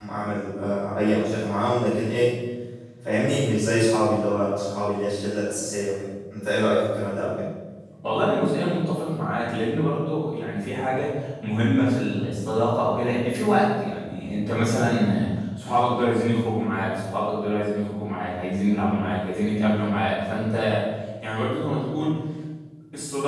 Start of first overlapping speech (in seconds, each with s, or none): none